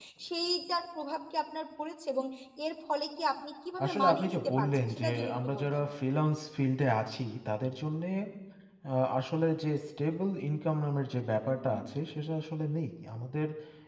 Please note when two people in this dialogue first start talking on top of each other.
3.8 s

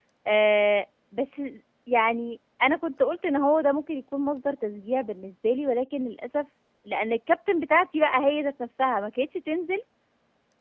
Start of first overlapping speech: none

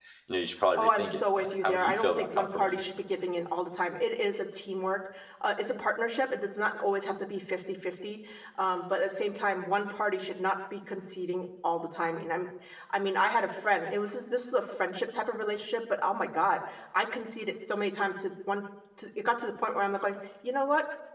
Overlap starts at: 0.8 s

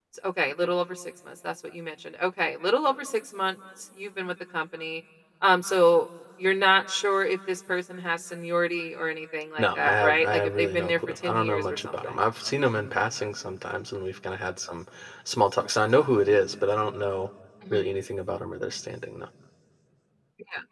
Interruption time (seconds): 9.6 s

